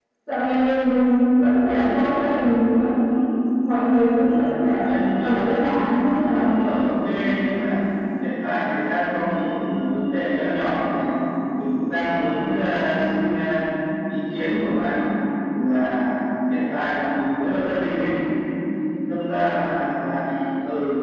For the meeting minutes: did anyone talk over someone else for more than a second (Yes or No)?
Yes